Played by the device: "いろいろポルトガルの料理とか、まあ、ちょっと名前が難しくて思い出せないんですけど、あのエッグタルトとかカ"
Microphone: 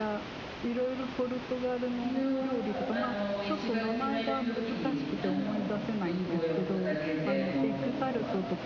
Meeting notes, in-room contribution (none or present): present